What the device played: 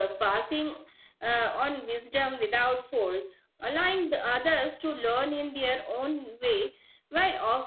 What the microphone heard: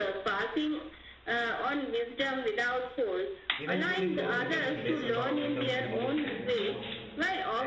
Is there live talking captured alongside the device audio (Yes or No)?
Yes